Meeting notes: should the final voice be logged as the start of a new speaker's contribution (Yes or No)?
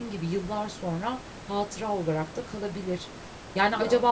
No